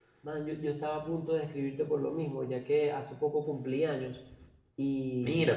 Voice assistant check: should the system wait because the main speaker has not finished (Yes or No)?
Yes